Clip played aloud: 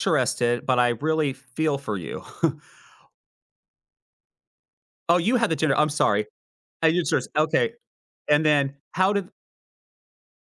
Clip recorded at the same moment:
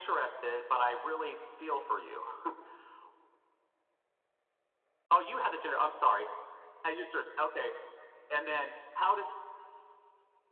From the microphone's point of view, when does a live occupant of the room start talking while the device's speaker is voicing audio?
none

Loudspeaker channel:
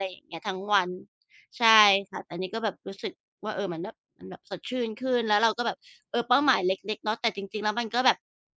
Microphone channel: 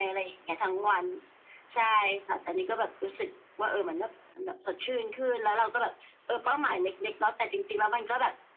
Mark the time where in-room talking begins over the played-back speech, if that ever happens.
none

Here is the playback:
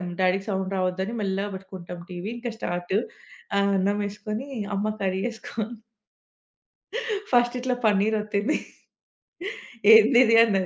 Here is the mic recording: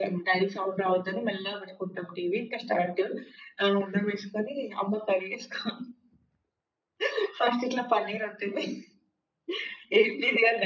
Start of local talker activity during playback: none

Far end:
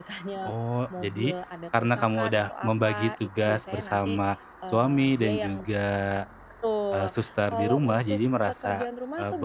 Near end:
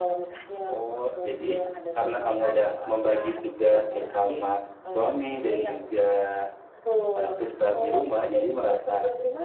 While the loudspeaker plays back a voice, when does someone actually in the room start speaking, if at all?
none

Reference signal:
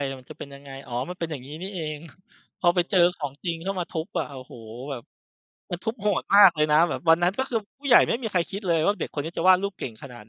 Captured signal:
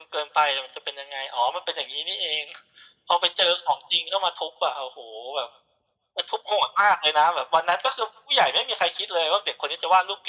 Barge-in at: none

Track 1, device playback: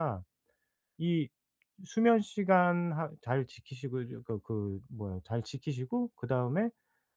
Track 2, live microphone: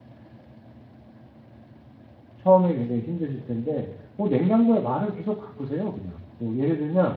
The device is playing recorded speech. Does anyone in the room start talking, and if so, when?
2.4 s

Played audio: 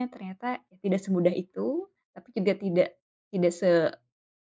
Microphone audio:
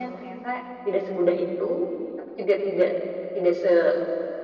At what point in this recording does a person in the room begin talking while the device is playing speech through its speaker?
none

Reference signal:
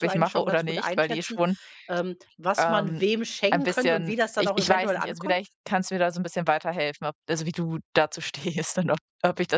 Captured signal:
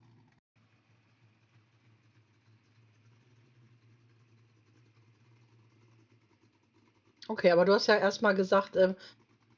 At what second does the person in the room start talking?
7.3 s

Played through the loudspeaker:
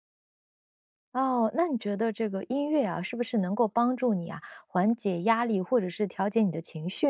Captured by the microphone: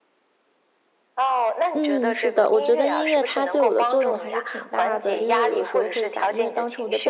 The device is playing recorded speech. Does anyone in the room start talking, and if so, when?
1.7 s

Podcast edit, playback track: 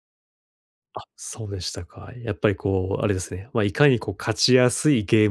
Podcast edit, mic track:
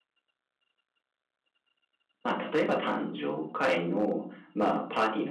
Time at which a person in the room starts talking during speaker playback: 2.2 s

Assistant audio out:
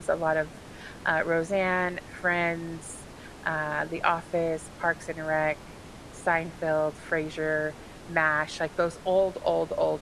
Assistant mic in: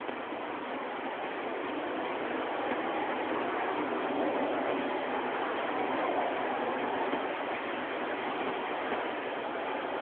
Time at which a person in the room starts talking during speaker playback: none

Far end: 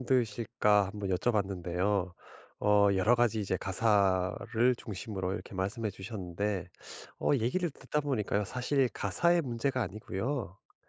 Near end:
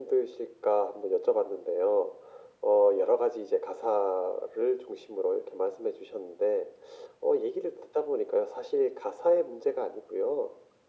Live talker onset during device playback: none

